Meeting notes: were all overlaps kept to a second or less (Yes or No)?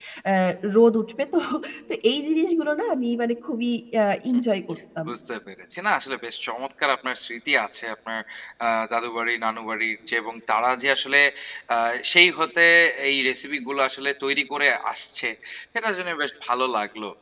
Yes